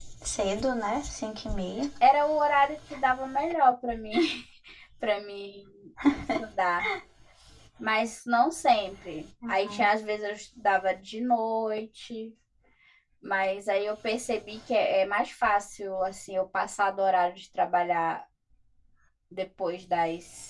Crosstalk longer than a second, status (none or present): none